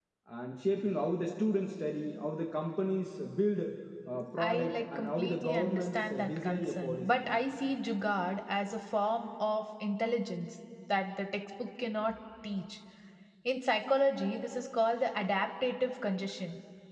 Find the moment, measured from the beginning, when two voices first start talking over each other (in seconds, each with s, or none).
4.4 s